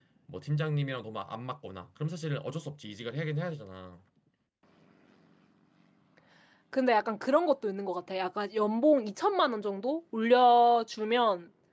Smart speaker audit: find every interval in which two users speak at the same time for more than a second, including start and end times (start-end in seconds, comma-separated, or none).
none